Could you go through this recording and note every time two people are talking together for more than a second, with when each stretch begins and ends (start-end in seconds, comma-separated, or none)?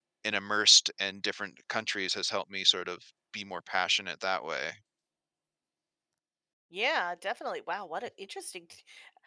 none